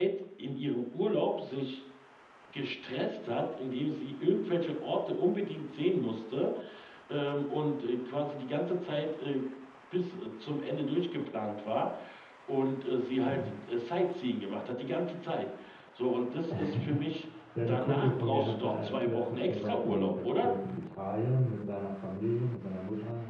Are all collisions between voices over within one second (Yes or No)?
No